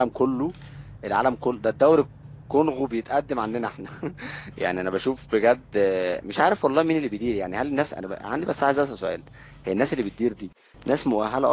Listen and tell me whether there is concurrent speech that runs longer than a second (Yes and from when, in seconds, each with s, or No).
No